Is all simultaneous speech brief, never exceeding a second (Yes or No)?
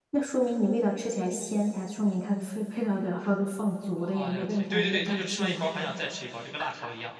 No